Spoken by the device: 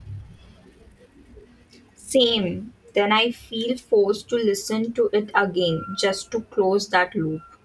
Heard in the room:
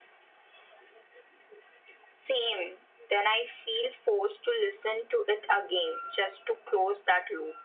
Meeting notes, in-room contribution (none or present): none